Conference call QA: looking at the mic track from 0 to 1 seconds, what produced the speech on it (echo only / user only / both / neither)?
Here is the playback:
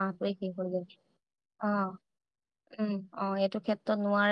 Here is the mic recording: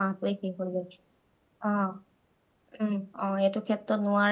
echo only